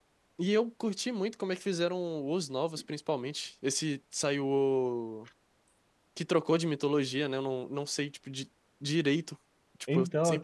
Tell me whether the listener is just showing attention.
Yes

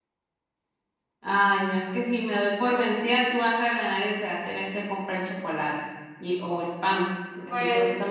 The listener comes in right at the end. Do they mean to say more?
Yes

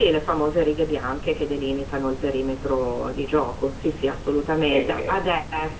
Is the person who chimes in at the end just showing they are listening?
Yes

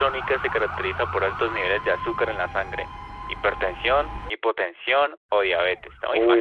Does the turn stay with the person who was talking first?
No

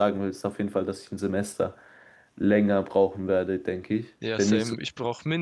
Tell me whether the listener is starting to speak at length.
Yes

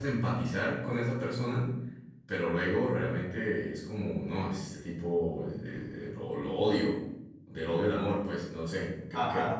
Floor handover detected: Yes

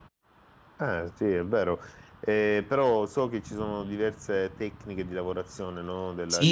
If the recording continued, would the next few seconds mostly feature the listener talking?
Yes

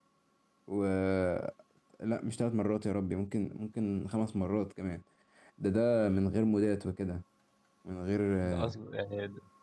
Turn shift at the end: Yes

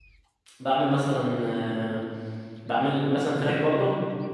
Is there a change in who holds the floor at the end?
No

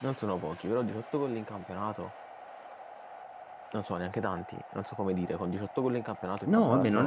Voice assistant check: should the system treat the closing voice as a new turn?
Yes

